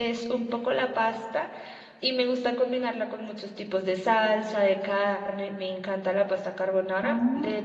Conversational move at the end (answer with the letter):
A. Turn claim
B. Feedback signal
B